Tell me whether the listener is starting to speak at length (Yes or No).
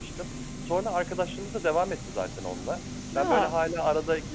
No